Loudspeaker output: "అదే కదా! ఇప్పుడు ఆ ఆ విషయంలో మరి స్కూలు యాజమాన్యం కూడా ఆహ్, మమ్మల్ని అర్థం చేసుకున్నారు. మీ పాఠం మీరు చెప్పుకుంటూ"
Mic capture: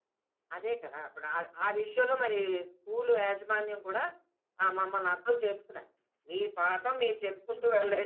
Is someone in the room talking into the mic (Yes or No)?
No